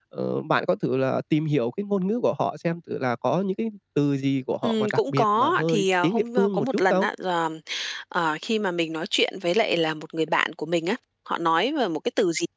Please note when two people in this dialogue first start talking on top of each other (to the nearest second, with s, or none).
5 s